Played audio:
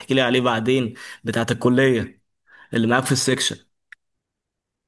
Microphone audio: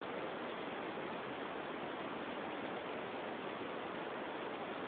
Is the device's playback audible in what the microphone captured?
No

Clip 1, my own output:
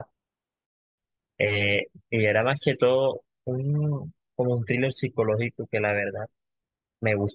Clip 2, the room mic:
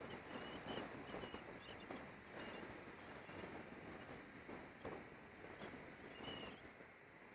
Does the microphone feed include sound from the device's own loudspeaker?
No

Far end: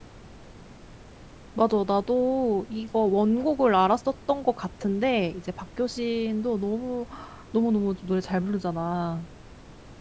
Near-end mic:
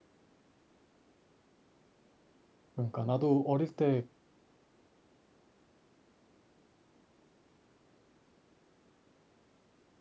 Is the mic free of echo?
Yes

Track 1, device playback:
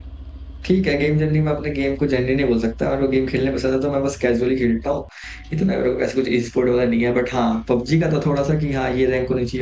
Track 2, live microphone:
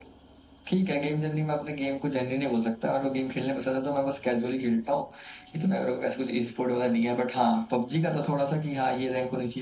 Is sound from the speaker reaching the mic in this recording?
Yes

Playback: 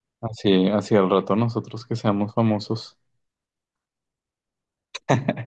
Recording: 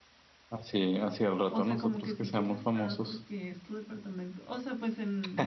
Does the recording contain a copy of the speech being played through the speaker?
Yes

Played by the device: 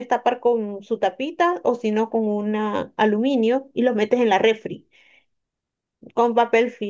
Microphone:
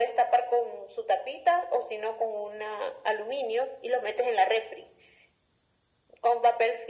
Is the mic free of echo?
No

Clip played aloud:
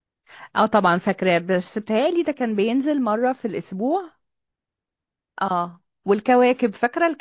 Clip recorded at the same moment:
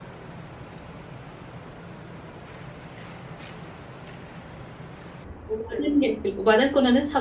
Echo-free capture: Yes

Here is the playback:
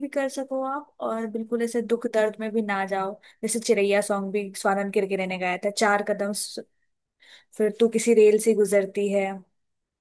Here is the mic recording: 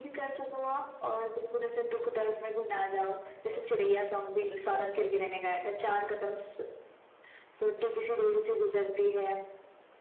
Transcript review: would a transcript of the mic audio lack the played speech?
No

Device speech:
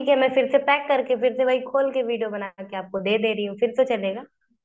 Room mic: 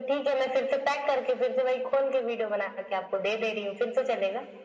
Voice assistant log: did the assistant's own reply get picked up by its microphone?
Yes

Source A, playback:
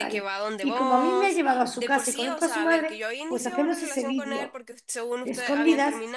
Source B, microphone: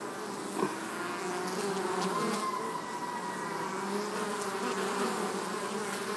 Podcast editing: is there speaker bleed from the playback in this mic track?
No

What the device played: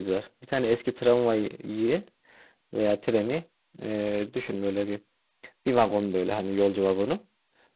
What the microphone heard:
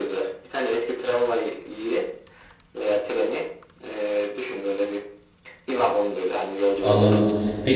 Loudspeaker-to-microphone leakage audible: Yes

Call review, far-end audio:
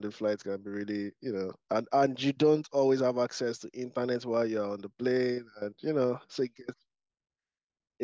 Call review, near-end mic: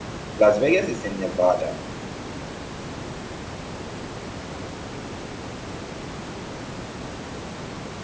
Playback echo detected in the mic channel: No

